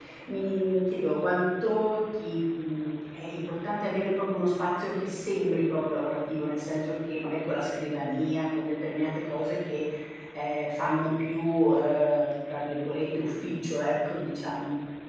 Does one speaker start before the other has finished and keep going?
No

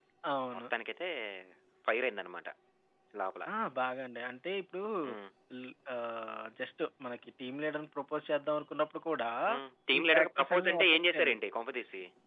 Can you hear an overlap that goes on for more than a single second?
Yes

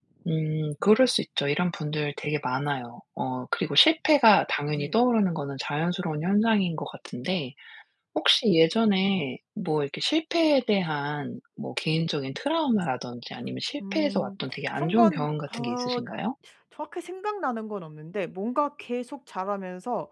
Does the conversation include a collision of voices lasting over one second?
Yes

